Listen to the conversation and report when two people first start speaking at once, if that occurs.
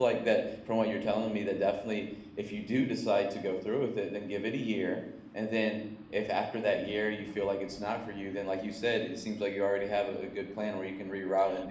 none

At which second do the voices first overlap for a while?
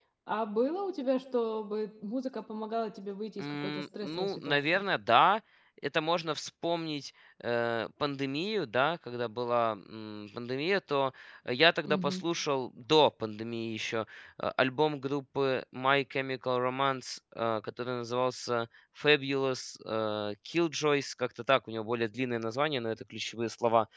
3.4 s

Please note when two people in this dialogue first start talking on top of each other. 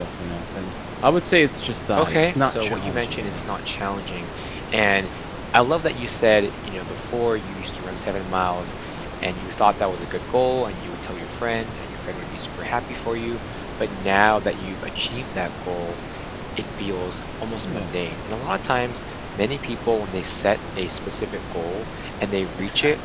2.0 s

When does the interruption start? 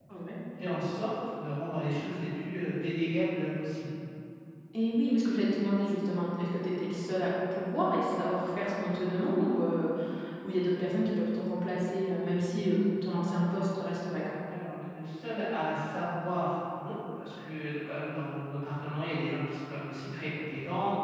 none

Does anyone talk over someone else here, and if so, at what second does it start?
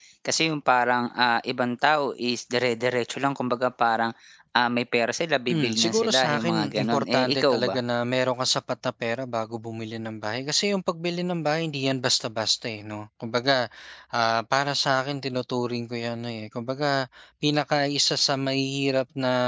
5.5 s

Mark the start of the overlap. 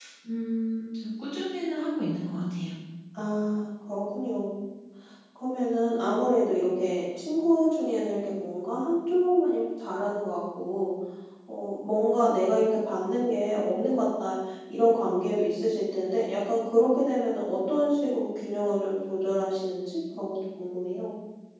none

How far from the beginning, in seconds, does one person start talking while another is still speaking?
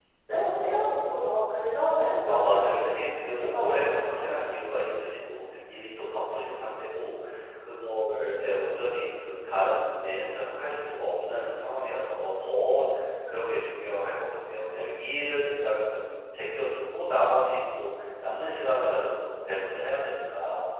2.3 s

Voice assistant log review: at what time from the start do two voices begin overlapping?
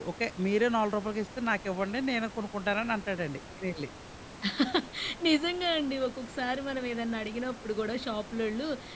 none

